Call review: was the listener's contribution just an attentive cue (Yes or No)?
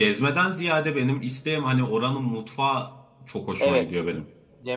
No